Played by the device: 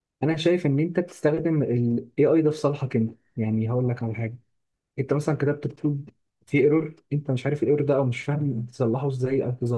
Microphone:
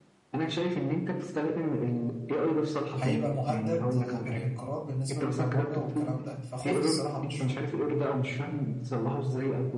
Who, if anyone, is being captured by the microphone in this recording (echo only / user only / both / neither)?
both